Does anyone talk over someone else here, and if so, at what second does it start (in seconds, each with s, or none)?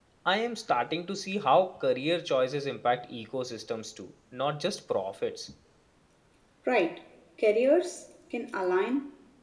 none